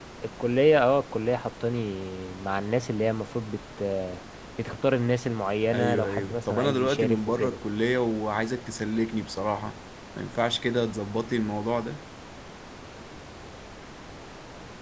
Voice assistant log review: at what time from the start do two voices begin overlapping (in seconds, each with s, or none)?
5.7 s